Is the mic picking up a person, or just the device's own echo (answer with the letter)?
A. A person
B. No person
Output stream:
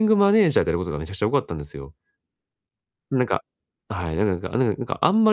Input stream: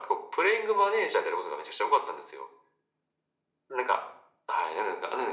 B